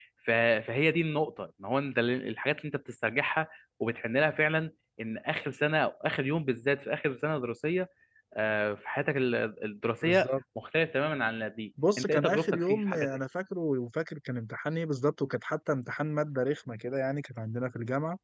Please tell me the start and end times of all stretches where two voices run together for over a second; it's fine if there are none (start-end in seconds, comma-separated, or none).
12.0-13.2